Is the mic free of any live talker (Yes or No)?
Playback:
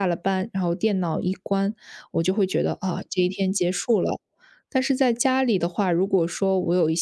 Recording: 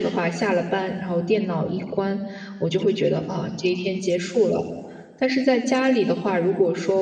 Yes